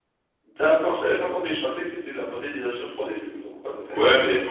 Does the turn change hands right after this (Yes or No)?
Yes